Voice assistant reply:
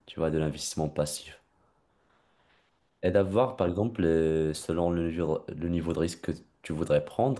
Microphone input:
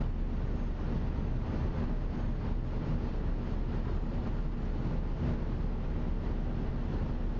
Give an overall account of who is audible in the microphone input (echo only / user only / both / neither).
neither